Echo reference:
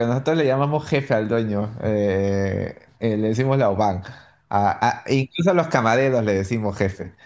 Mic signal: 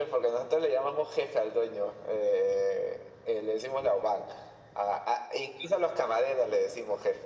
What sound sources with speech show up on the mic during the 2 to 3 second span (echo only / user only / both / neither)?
echo only